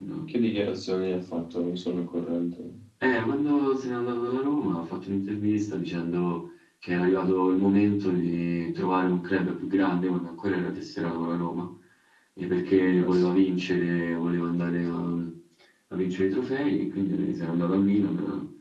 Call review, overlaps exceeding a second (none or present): none